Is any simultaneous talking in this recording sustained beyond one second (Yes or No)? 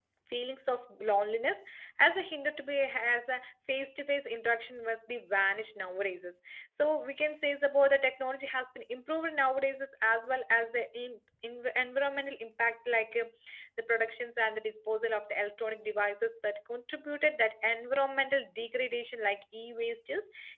No